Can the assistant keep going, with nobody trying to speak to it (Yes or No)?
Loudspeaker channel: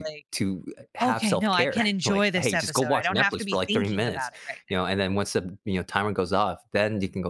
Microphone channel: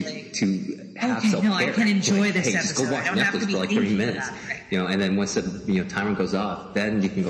Yes